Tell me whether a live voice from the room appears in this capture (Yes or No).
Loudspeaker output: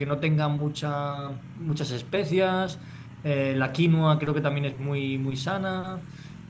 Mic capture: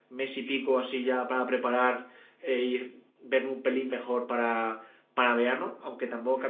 Yes